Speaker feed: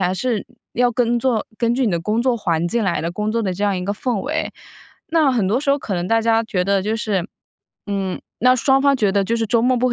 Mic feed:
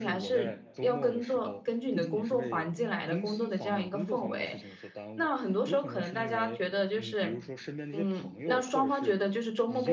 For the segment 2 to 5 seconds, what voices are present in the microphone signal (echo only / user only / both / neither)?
both